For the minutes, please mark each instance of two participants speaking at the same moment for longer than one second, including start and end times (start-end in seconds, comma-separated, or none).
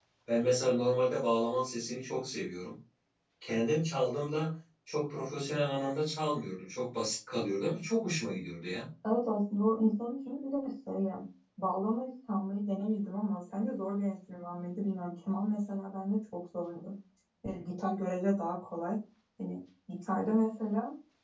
none